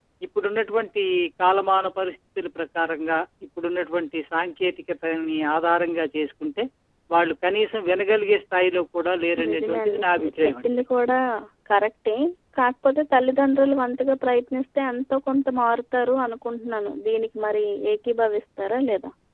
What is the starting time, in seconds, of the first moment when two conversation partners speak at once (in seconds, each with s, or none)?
9.4 s